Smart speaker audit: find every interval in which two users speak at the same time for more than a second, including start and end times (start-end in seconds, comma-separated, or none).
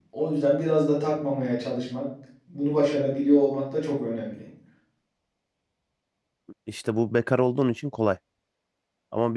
none